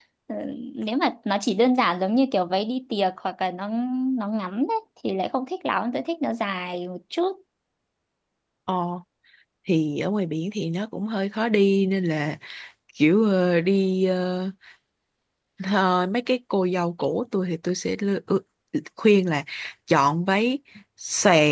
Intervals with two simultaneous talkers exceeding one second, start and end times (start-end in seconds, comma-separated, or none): none